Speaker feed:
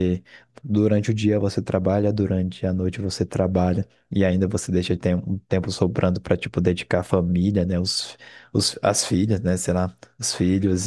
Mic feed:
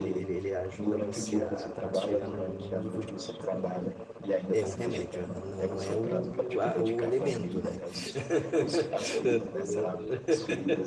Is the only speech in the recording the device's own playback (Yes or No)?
No